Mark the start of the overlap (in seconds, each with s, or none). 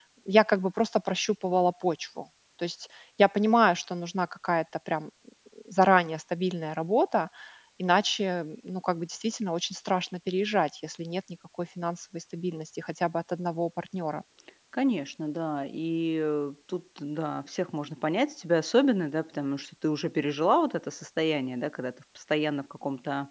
none